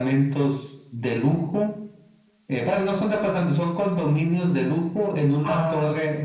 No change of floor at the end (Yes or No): Yes